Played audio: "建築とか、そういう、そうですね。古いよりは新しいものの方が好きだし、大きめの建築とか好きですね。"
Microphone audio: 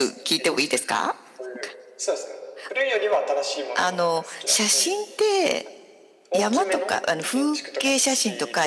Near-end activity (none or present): present